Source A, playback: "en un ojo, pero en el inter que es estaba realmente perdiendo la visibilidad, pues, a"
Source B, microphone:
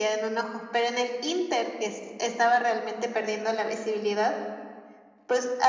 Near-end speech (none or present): none